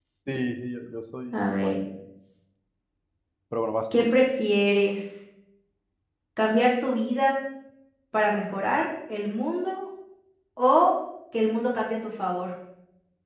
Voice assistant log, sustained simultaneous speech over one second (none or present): none